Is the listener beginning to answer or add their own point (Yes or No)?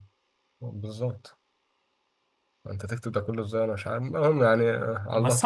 Yes